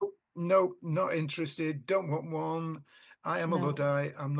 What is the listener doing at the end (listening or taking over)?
listening